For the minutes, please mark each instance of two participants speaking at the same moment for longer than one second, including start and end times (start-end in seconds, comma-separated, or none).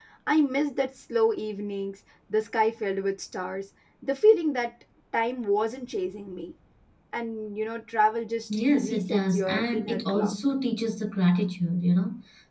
8.7-10.3